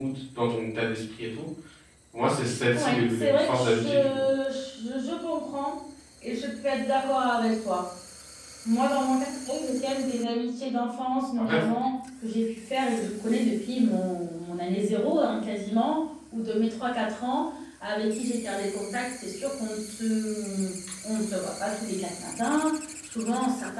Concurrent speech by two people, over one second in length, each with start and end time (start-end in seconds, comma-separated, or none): 2.7-4.1